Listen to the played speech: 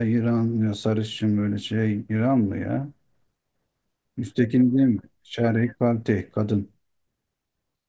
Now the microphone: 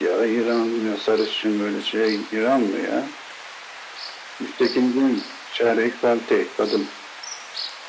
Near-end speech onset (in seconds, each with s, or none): none